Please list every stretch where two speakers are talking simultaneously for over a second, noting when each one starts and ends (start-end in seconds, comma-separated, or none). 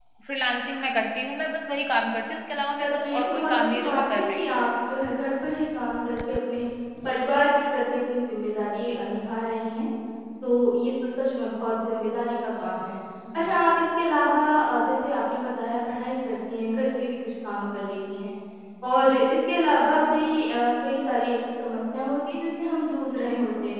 2.8-4.5